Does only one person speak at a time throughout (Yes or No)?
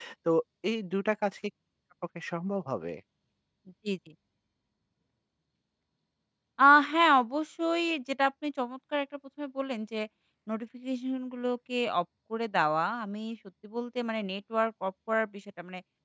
Yes